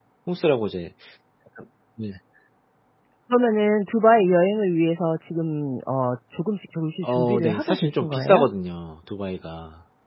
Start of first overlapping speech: 7 s

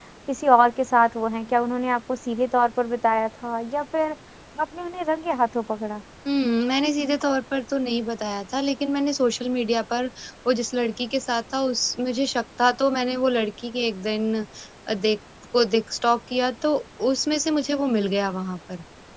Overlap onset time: none

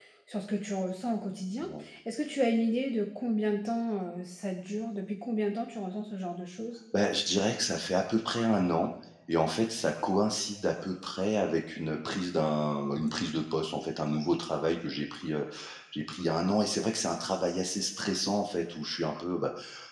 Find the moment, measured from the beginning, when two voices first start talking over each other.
none

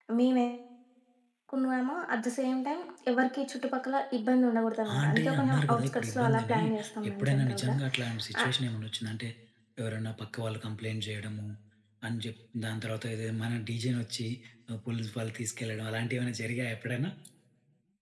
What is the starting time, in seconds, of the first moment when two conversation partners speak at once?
5 s

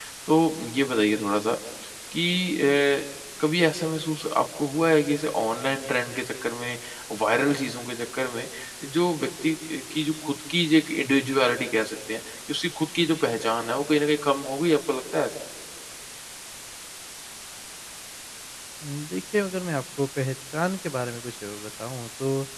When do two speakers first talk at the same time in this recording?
none

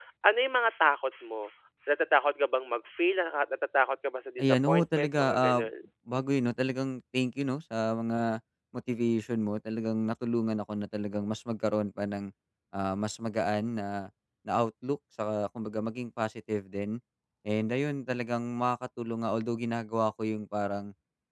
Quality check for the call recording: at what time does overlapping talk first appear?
4 s

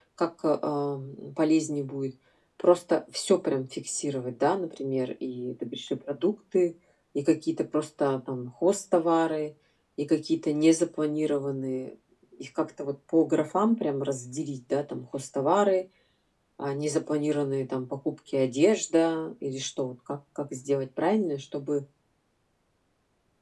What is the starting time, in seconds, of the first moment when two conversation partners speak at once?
none

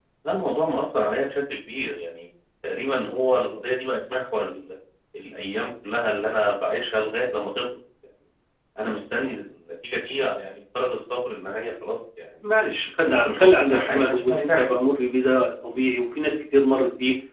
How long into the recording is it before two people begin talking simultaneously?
13 s

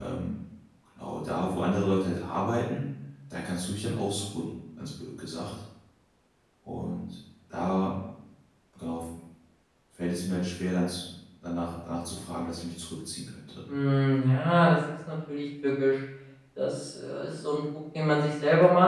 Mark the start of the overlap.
none

